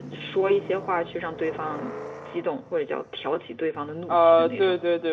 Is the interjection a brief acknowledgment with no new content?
No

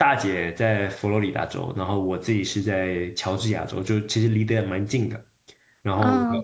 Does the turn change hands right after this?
No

